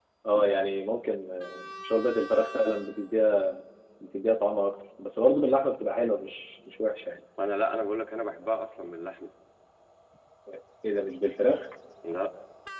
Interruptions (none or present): none